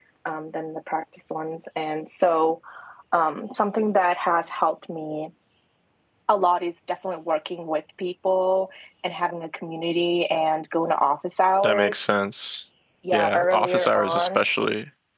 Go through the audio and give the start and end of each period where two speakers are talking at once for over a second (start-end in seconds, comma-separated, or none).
13.1-14.4